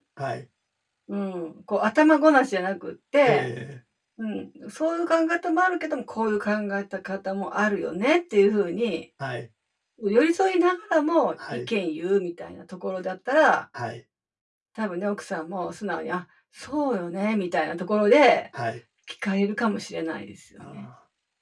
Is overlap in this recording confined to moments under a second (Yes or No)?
Yes